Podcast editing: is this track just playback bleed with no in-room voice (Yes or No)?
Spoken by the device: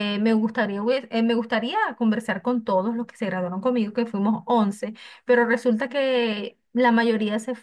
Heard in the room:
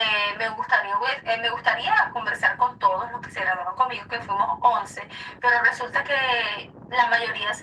Yes